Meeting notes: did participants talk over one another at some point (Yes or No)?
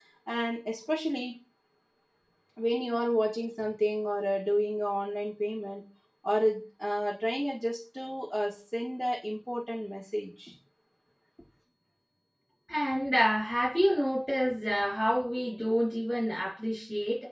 No